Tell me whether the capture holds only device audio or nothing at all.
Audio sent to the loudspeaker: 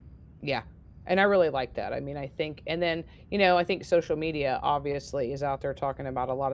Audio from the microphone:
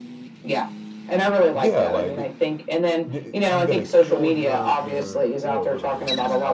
No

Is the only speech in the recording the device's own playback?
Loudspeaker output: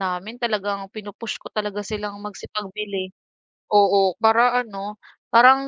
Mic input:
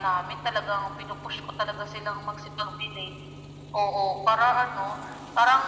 Yes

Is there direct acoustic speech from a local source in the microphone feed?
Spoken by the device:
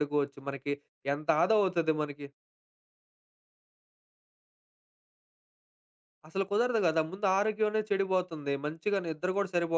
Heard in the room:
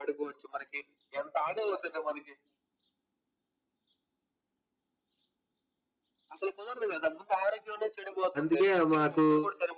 Yes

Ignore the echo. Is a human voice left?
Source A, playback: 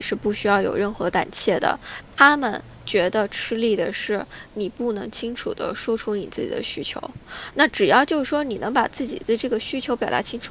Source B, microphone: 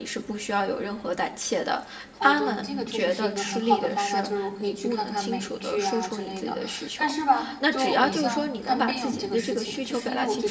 Yes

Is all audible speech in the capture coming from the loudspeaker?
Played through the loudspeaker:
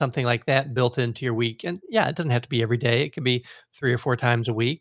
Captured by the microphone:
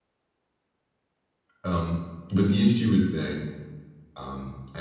No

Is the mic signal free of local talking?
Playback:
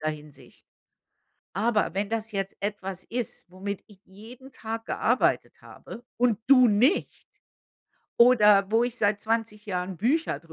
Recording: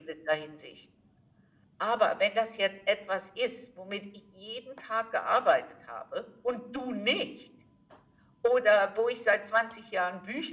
Yes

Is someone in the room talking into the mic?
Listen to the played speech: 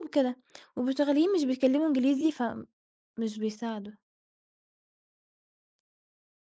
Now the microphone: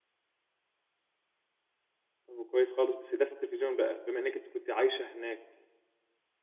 Yes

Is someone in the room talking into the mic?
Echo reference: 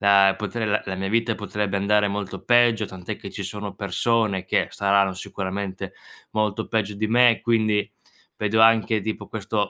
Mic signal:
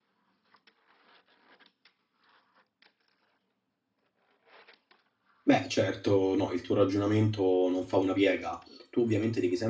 Yes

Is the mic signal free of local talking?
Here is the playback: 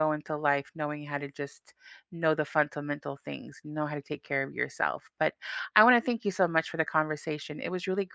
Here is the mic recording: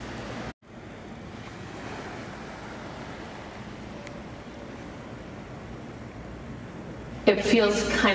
No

